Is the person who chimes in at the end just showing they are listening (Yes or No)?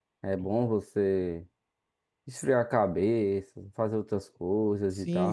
No